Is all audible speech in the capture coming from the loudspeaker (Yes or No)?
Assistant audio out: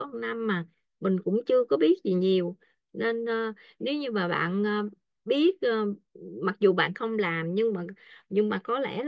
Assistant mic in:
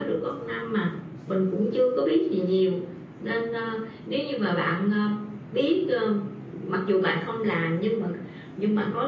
Yes